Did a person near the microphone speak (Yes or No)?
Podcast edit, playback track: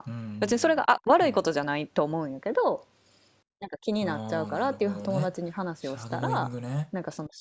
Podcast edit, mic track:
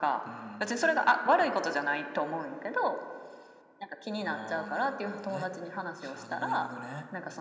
No